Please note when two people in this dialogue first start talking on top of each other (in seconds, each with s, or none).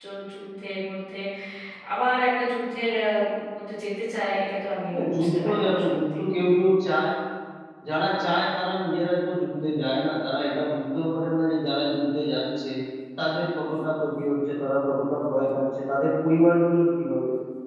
4.9 s